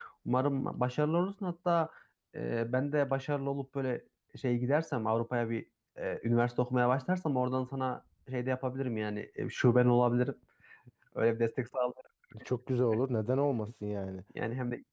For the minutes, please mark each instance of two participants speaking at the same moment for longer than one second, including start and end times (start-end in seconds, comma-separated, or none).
none